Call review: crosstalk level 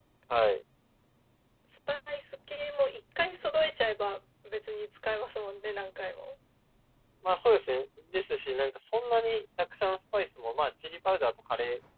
none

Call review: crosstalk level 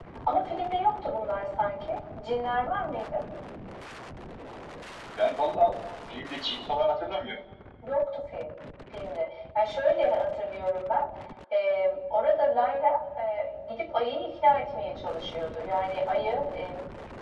none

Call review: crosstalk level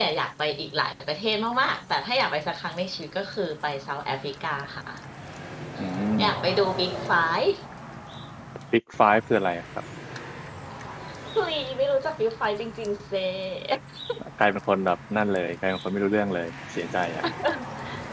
none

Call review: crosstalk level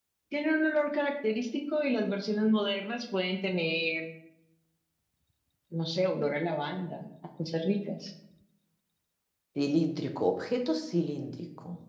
none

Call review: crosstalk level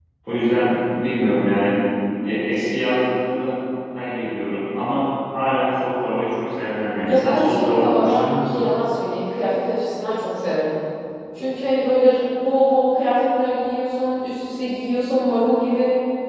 present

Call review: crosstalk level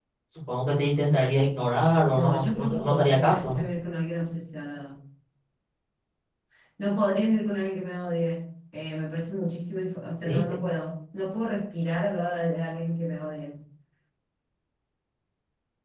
present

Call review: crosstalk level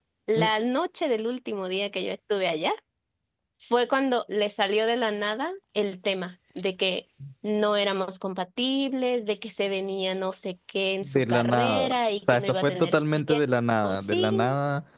present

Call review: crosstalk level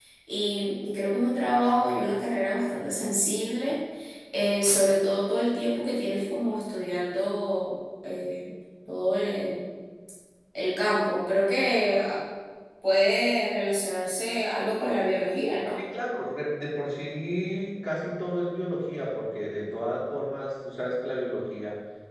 none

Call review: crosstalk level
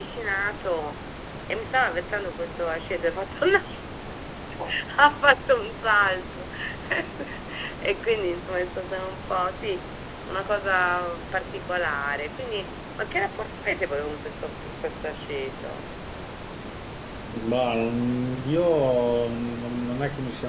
none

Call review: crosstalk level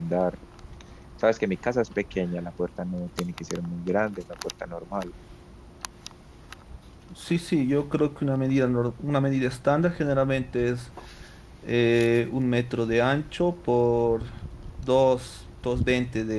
none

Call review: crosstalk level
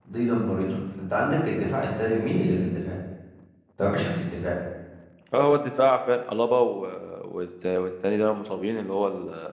none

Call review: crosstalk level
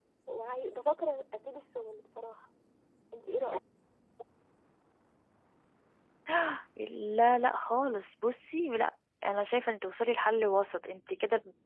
none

